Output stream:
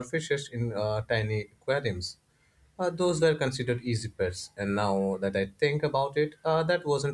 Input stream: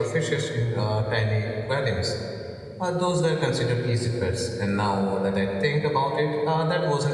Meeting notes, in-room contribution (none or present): none